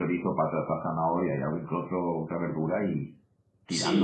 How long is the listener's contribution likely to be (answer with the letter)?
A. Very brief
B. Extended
B